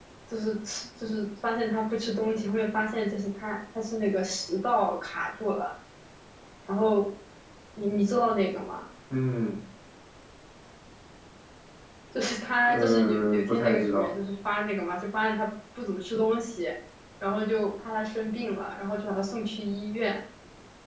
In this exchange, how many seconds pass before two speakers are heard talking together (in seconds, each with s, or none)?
12.6 s